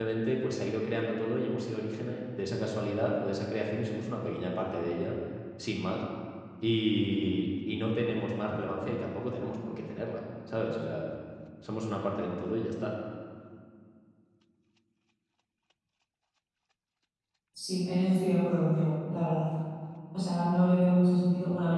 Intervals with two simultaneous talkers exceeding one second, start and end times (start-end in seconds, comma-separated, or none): none